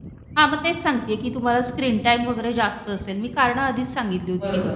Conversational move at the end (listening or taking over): taking over